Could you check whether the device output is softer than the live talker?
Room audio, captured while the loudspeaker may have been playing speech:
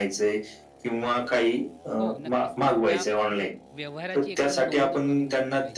No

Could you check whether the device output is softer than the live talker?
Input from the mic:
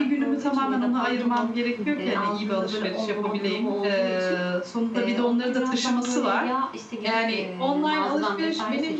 No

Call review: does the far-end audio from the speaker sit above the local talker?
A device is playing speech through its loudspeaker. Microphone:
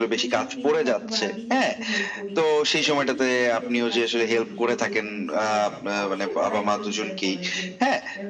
Yes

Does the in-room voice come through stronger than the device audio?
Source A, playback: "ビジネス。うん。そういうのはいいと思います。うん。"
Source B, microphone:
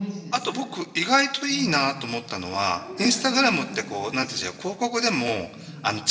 Yes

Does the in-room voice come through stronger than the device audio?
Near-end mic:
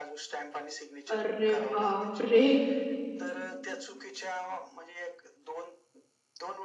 Yes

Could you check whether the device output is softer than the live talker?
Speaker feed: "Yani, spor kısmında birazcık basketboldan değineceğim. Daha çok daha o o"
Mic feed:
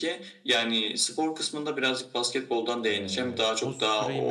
No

